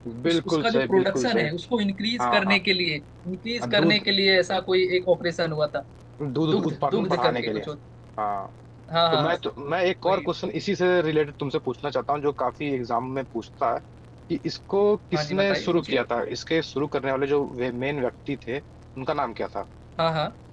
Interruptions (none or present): present